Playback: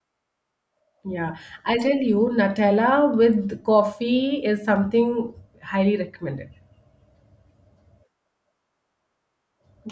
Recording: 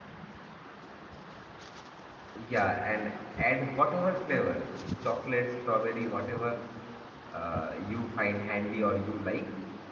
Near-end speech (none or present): present